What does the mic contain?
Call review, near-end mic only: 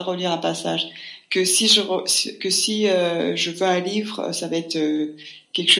echo only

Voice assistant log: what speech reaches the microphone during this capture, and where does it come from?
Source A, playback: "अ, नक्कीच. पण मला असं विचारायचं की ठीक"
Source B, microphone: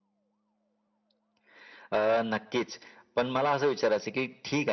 echo only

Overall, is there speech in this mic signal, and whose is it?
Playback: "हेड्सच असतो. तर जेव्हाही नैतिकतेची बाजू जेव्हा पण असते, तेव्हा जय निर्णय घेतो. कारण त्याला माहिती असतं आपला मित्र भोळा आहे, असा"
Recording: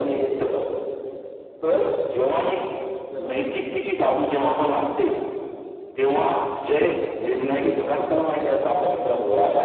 echo only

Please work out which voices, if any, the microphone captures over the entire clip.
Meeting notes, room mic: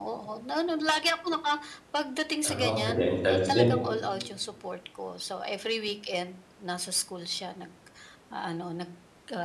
both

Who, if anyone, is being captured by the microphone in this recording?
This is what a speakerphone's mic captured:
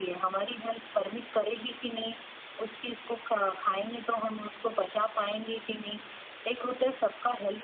echo only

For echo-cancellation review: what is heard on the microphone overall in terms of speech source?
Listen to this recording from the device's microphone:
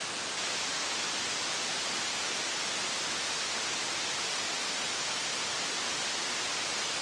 neither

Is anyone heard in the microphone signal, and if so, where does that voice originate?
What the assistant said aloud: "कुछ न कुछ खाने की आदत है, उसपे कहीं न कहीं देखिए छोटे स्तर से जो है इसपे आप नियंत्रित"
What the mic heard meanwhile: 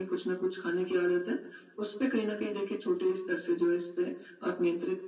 echo only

